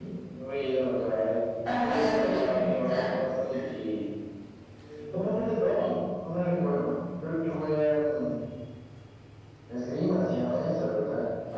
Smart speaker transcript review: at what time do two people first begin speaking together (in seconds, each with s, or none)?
1.8 s